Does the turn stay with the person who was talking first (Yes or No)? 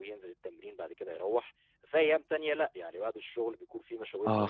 No